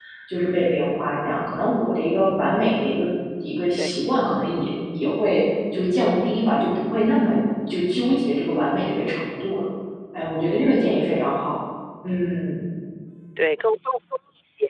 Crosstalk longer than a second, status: none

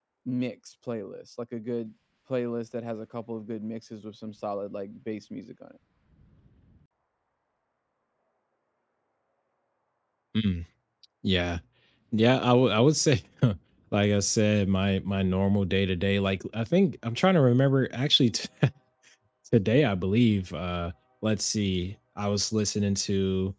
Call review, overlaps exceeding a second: none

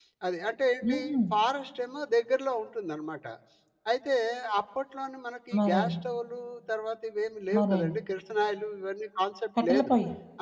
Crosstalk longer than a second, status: none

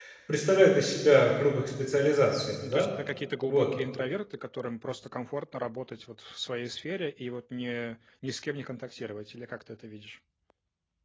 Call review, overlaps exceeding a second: none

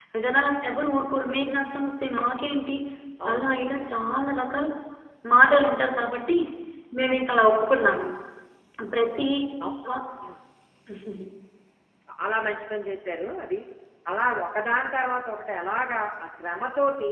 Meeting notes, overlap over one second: none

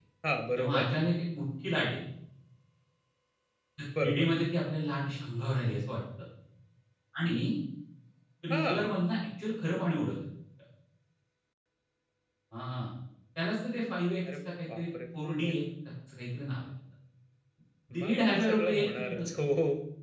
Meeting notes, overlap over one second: present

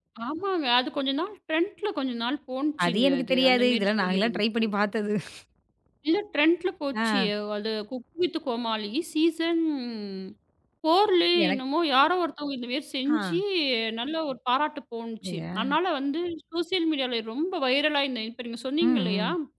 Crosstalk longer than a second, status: present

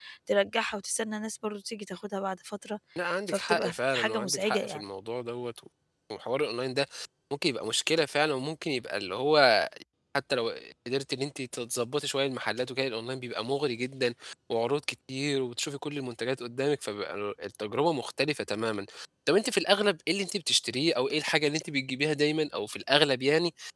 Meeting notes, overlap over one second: present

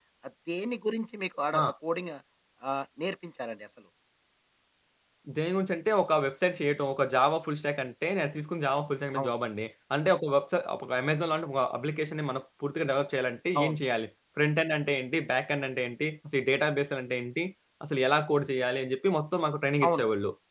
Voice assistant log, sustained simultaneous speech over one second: none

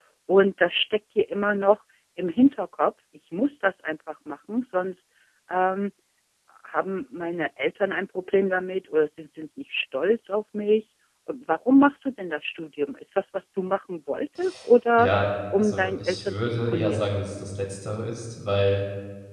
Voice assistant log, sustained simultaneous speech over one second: present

